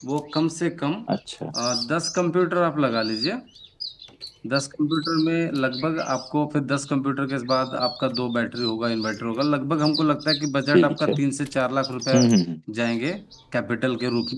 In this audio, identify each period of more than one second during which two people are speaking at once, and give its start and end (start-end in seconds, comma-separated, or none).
none